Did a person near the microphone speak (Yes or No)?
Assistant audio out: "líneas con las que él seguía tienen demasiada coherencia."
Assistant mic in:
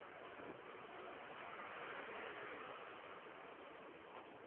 No